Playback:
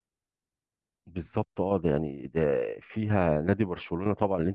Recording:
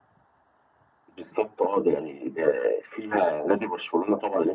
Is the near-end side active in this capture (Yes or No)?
No